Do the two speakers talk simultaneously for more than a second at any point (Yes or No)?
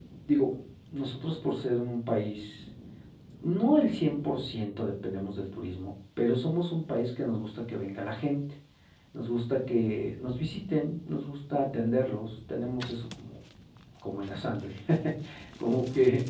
No